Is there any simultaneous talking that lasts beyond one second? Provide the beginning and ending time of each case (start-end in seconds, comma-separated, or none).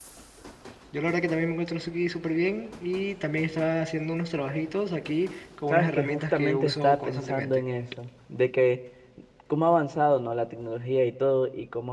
5.7-7.6